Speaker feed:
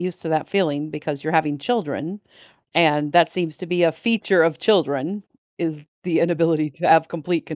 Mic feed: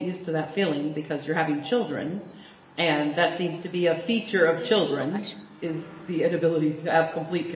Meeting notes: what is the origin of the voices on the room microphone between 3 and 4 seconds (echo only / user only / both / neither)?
echo only